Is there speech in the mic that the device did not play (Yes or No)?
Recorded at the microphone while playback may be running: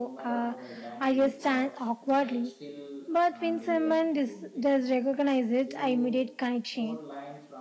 Yes